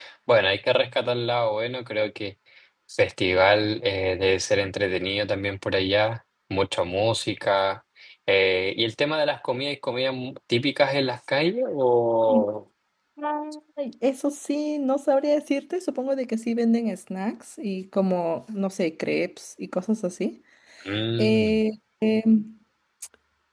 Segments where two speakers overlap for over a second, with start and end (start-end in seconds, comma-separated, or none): none